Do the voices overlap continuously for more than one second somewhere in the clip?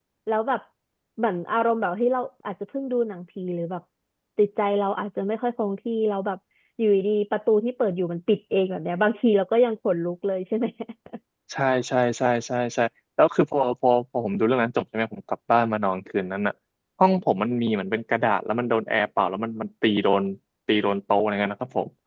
No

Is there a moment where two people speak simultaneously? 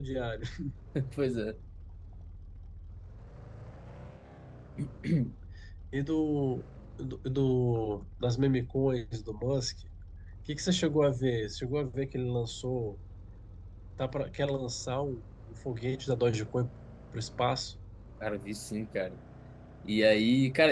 No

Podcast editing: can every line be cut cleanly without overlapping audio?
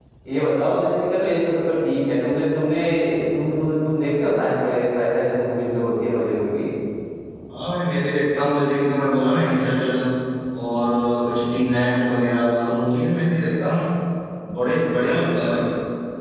Yes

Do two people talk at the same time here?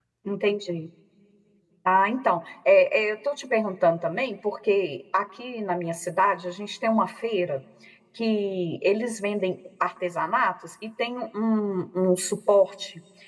No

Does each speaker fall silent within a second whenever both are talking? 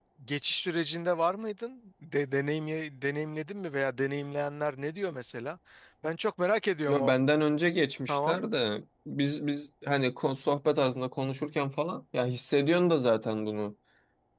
Yes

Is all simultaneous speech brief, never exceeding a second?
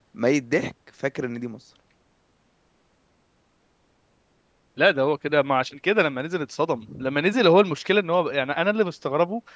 Yes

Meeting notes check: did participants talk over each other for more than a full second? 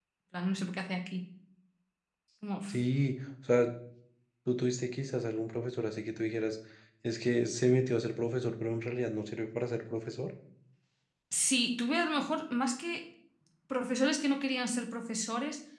No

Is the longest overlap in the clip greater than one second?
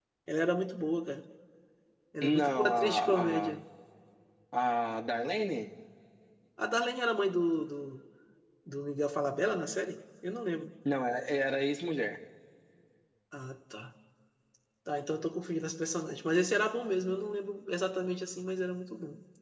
Yes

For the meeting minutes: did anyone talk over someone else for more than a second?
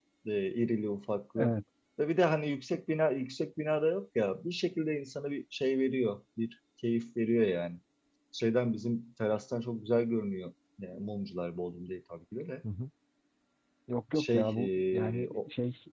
Yes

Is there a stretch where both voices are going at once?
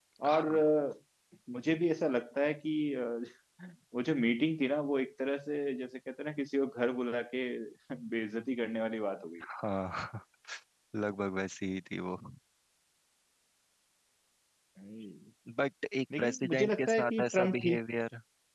Yes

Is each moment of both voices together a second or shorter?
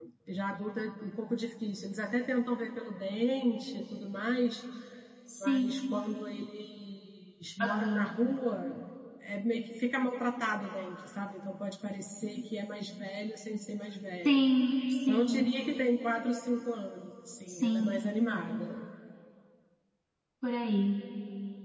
Yes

